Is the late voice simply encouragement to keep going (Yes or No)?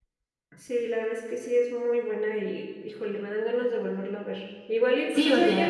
No